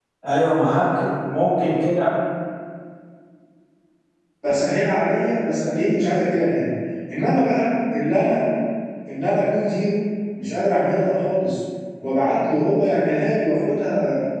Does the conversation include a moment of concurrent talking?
No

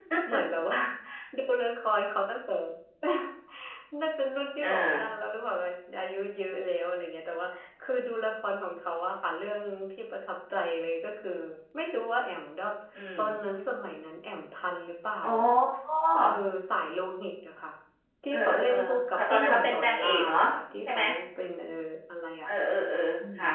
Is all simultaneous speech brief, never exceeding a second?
No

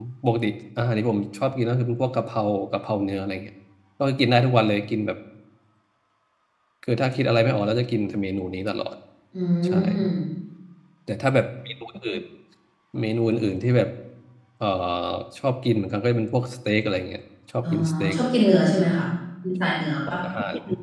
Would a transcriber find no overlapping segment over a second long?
Yes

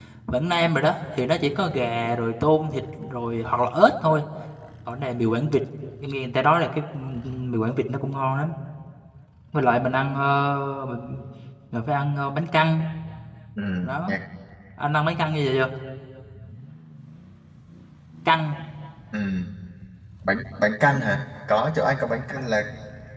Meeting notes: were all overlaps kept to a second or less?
Yes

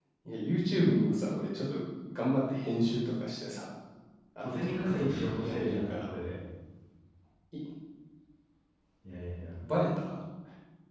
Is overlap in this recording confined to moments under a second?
No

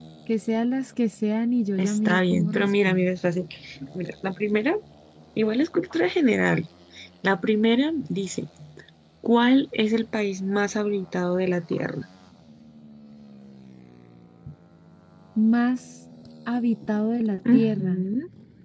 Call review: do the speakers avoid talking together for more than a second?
No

